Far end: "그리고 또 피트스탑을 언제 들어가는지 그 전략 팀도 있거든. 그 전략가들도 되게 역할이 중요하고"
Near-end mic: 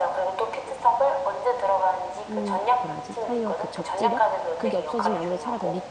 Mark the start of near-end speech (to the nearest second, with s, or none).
2 s